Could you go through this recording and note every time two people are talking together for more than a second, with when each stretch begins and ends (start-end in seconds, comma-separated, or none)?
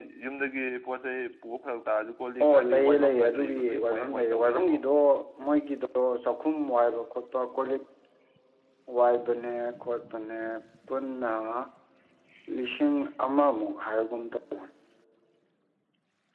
2.4-4.8